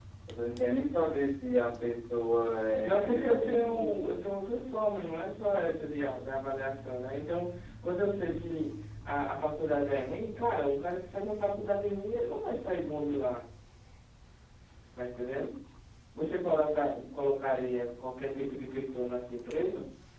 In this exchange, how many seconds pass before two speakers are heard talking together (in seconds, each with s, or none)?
2.8 s